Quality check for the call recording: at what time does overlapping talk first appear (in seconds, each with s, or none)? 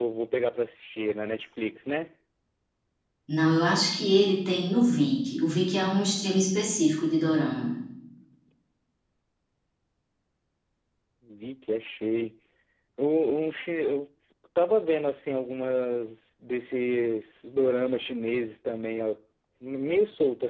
none